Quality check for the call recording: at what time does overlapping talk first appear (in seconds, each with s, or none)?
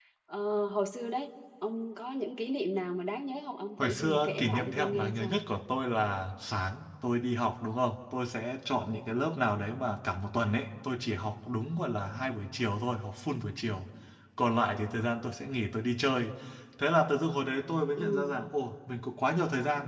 3.8 s